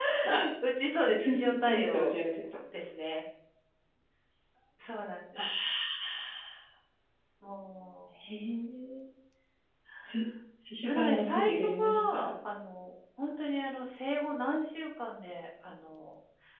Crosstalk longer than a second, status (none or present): present